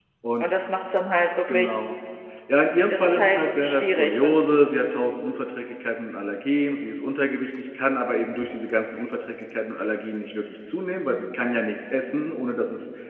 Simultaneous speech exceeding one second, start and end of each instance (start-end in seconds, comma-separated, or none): 2.9-4.4